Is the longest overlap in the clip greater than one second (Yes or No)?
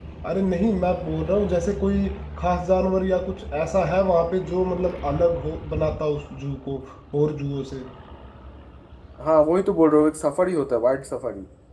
No